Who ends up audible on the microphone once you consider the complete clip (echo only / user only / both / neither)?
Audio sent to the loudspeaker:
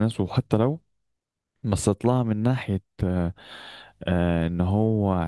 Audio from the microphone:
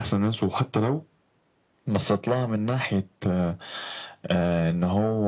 echo only